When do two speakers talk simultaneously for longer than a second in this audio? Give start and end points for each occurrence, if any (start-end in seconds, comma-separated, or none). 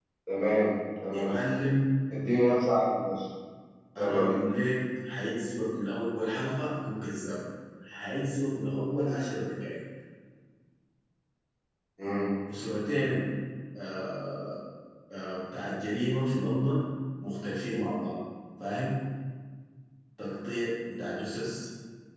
none